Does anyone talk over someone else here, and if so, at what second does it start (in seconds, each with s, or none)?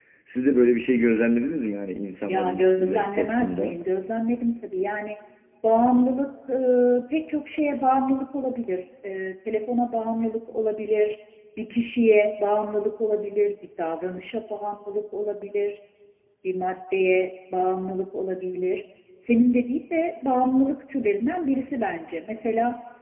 2.3 s